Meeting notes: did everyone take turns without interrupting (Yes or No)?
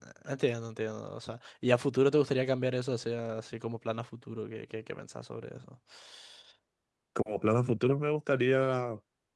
Yes